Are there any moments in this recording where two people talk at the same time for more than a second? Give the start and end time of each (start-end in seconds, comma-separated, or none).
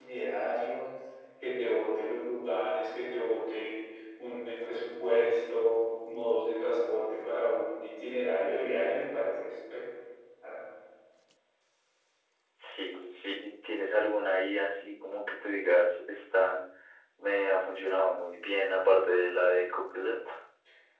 none